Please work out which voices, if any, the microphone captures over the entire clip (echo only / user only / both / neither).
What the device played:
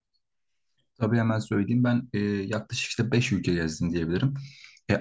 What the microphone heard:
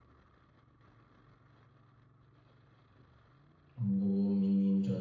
user only